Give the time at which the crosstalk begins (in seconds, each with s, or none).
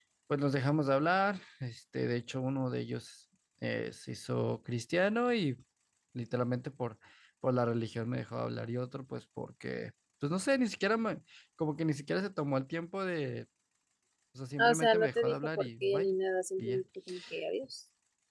14.6 s